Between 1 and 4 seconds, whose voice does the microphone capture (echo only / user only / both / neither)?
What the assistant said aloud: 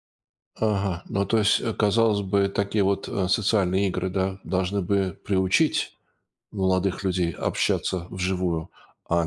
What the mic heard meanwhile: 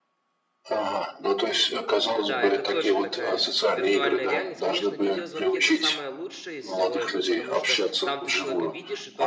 both